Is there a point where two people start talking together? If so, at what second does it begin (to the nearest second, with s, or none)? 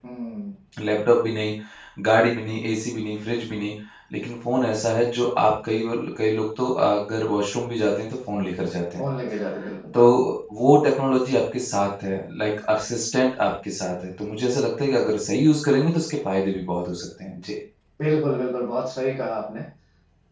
none